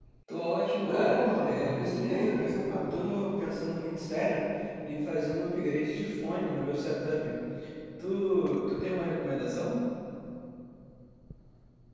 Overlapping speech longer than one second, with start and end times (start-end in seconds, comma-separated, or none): 0.8-2.8